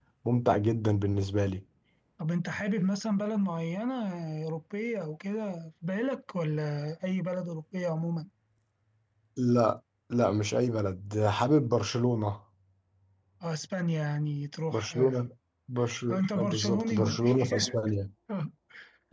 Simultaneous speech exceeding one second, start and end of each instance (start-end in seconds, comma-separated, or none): 16.1-17.6